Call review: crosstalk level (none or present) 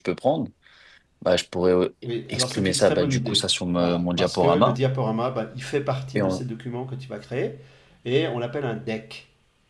present